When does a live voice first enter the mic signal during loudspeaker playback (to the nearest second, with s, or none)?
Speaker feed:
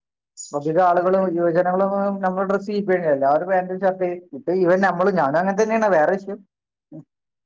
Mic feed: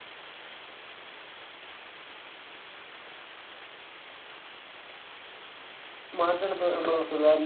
6 s